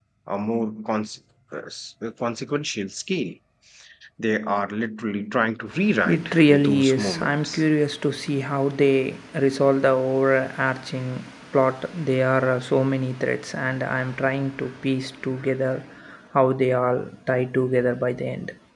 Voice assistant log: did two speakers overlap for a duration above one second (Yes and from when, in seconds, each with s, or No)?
Yes, from 5.9 s